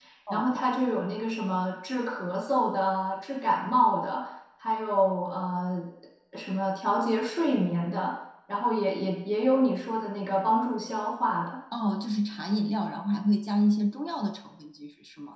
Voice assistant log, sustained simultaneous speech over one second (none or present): none